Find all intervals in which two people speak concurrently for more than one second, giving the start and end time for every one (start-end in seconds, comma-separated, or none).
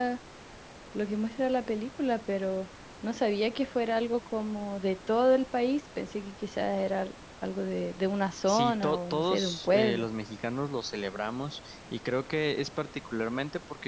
8.5-10.0